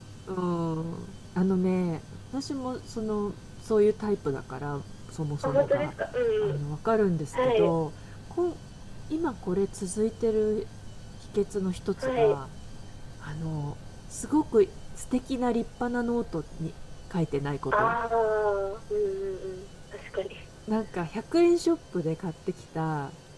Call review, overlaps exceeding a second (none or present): none